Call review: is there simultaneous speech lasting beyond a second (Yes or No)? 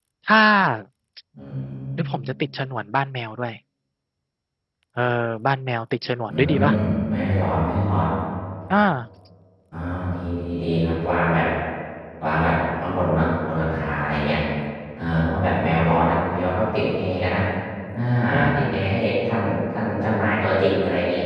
No